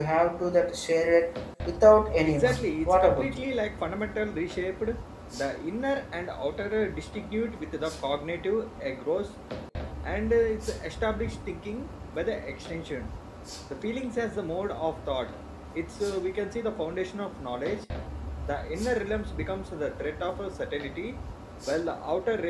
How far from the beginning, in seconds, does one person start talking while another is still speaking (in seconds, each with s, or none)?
2.2 s